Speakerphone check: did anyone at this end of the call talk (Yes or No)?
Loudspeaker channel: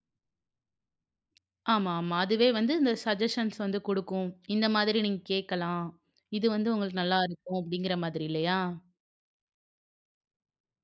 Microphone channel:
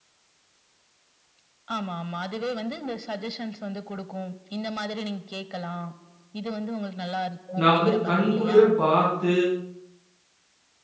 Yes